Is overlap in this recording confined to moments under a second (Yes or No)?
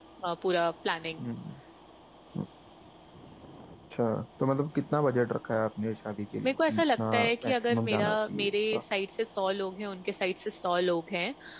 No